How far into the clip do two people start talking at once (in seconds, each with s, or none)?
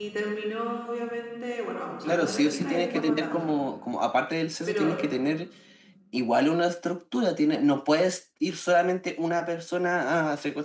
2.0 s